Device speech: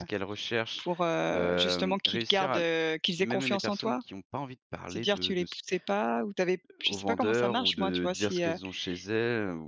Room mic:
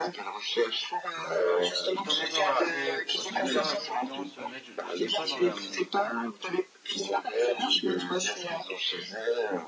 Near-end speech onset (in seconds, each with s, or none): 1.9 s